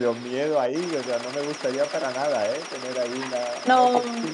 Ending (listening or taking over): taking over